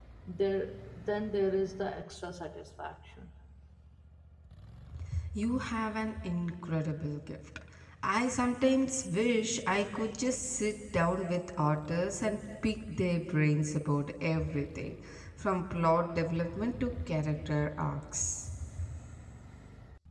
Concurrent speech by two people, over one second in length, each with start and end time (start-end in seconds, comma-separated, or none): none